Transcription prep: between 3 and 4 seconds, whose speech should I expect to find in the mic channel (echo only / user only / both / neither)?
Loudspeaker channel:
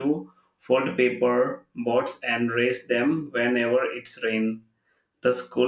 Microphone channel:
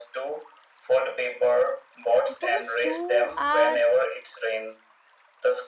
both